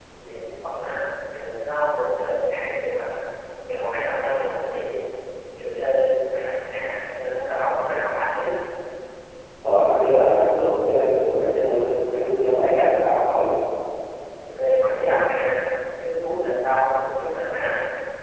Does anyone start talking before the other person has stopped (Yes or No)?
No